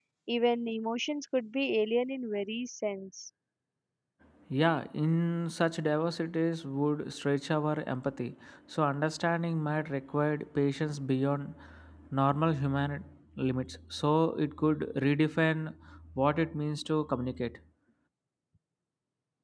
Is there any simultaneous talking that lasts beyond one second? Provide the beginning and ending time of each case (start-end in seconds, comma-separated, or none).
none